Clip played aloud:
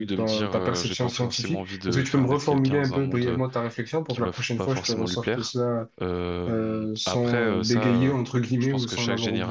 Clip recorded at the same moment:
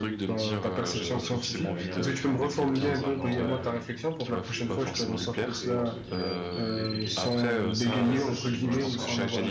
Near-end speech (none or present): present